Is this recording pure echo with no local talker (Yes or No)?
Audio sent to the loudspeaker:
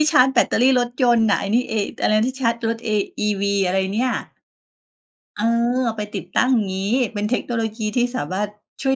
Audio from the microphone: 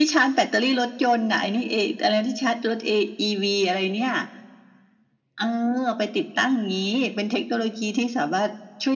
Yes